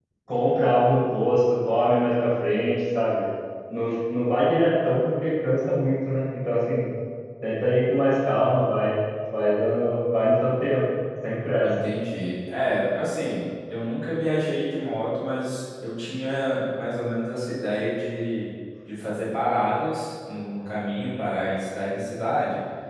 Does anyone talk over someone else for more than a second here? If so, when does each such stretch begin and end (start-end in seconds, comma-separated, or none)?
none